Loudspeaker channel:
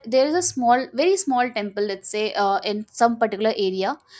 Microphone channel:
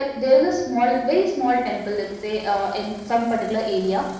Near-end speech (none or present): none